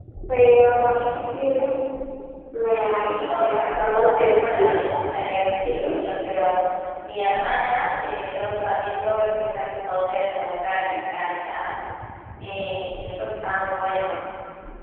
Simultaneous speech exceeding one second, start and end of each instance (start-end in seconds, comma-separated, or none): 2.9-4.8